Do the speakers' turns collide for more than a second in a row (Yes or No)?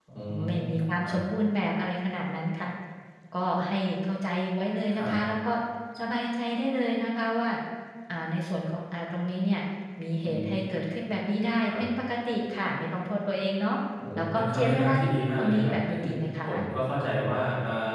Yes